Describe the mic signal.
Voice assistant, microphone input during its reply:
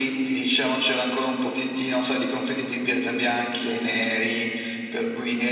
echo only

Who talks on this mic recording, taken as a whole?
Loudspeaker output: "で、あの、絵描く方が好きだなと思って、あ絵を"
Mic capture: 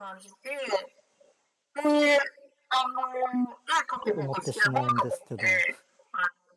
both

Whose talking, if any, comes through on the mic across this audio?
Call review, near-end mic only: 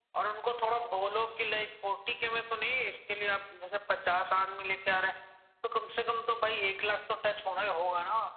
echo only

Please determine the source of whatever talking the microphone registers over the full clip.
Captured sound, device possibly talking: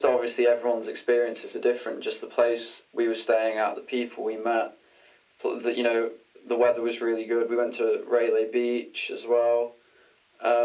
echo only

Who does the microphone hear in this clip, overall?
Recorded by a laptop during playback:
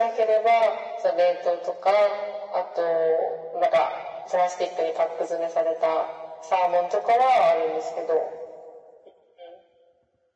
echo only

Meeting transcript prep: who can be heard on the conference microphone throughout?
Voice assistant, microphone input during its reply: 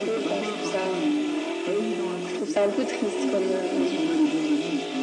echo only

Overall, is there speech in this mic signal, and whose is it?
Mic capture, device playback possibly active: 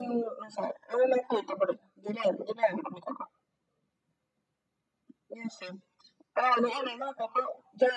echo only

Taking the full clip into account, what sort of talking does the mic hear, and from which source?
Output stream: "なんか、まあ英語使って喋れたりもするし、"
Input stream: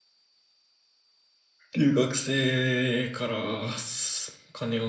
user only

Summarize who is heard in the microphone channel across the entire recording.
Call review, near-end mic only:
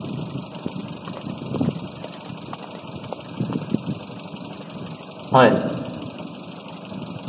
user only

